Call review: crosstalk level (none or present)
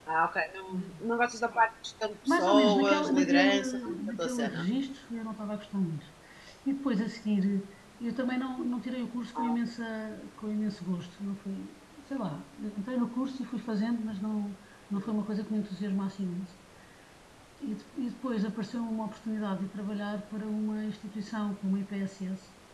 present